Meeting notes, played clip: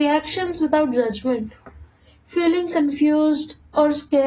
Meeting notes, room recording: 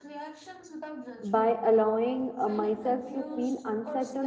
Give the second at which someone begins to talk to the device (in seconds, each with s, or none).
1.2 s